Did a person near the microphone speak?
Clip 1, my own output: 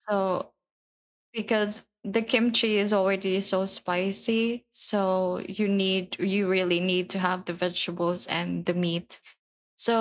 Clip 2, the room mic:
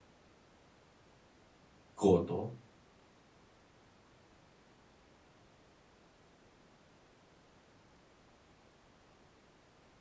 Yes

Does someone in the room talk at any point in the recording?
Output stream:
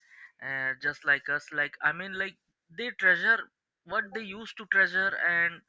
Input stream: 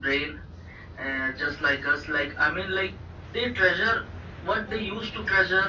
No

